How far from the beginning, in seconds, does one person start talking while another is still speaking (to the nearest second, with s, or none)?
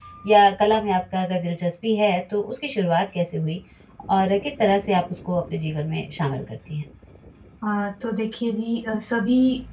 none